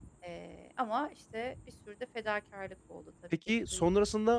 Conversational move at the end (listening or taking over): taking over